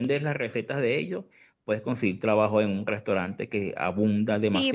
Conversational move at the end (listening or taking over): taking over